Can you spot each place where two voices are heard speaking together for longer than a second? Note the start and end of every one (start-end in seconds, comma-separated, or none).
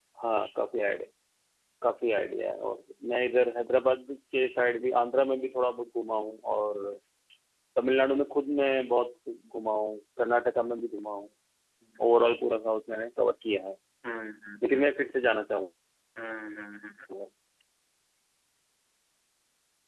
none